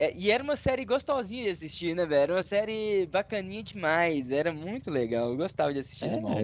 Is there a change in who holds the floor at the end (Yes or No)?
Yes